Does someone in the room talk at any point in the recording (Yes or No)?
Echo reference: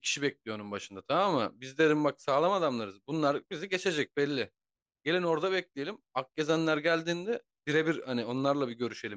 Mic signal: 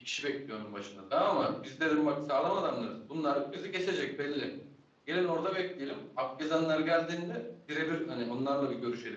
No